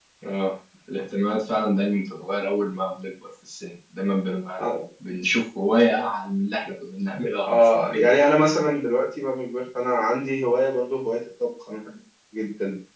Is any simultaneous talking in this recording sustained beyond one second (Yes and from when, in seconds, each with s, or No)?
No